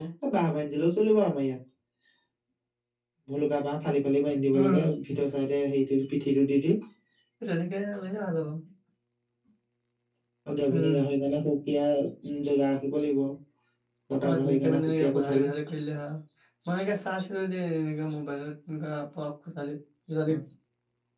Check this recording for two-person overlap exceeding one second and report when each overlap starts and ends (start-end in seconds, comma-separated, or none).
14.3-15.5